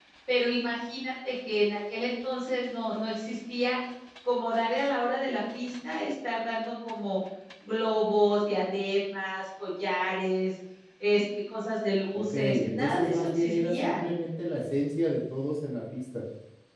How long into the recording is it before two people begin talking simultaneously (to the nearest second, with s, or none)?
12 s